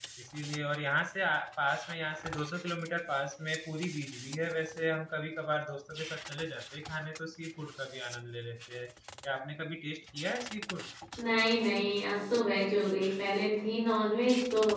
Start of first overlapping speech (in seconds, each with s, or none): none